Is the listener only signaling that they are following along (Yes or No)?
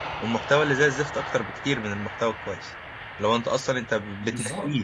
Yes